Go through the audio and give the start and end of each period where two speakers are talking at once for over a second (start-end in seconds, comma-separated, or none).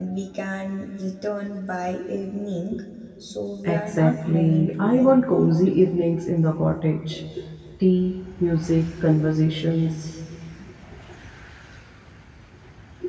3.6-5.5